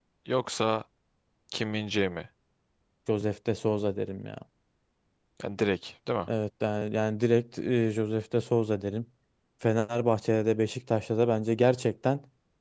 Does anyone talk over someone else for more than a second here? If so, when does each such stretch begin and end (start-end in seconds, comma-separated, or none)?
none